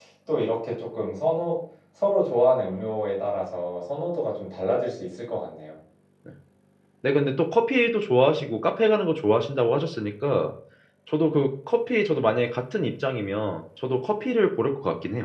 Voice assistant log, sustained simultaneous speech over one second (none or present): none